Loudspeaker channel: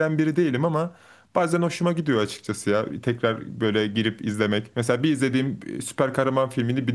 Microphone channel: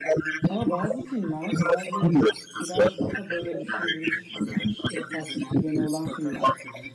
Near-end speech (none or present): present